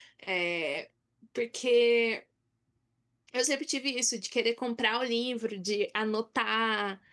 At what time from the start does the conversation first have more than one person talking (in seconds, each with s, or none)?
none